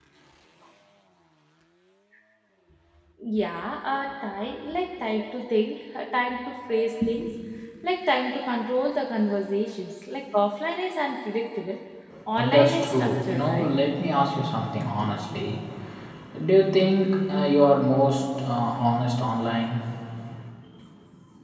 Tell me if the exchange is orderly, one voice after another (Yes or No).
No